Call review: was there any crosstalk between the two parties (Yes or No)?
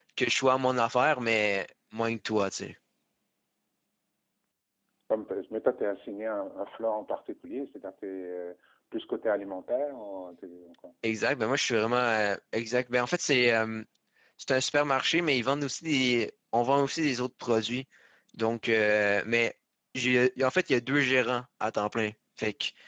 No